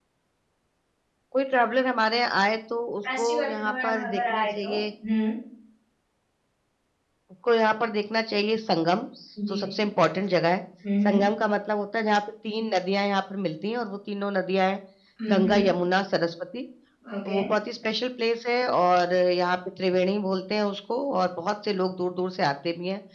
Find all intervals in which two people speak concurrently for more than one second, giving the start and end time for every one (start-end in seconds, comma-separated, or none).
3.1-4.7